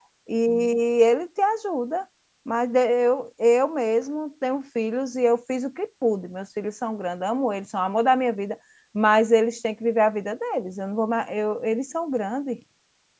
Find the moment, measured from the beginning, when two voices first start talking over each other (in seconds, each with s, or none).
none